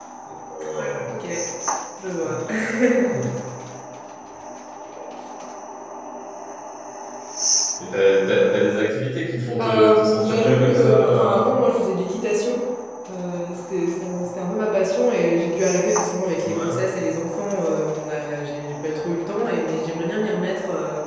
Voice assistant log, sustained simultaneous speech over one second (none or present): present